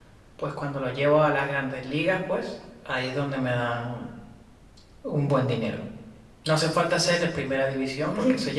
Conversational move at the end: listening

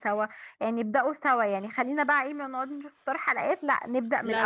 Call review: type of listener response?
taking over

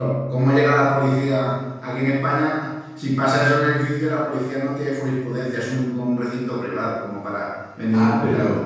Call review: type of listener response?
taking over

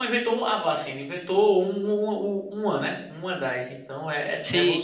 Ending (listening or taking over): taking over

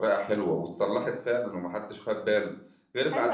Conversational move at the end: taking over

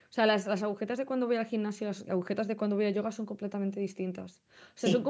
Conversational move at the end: listening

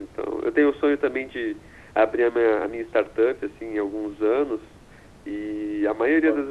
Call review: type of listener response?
listening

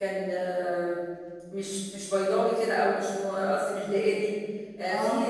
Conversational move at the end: listening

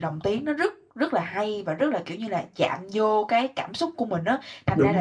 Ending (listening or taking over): listening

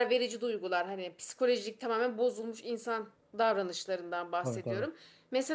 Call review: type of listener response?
listening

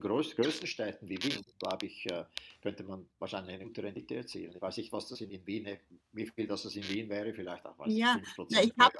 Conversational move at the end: taking over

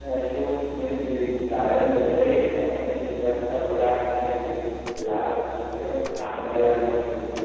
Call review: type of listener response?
listening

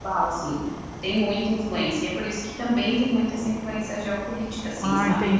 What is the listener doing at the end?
taking over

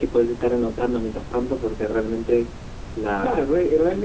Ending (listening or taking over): taking over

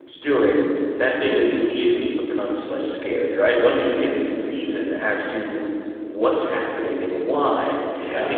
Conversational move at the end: listening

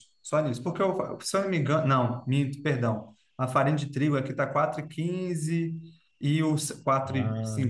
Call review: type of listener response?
listening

